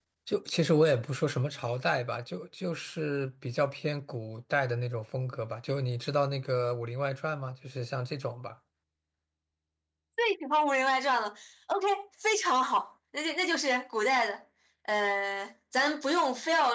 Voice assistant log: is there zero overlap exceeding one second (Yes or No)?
Yes